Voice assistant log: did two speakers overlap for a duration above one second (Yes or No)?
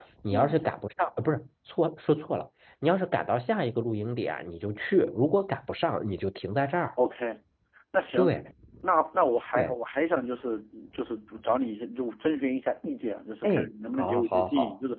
Yes